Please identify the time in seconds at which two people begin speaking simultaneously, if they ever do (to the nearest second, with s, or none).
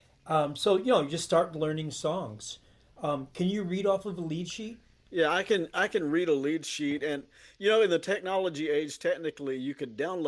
none